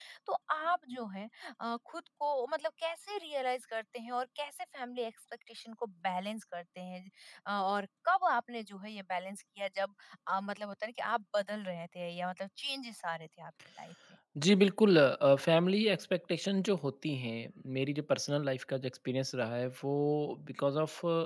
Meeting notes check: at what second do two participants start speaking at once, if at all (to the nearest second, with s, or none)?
none